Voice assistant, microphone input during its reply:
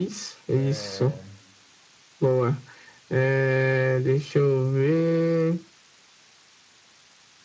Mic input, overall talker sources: both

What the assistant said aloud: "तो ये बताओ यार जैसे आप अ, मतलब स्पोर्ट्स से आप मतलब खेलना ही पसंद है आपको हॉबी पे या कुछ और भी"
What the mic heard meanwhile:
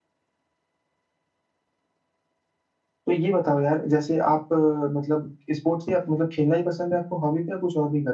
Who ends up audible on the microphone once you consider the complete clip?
echo only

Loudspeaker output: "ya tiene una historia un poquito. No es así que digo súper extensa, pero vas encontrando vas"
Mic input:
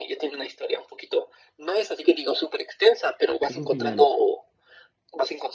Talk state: both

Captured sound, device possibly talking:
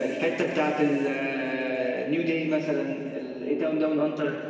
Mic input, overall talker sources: echo only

